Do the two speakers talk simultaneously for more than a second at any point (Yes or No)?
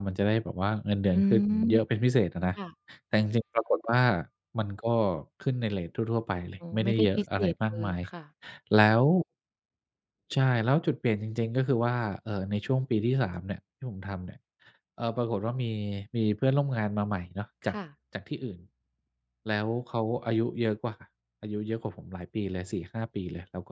Yes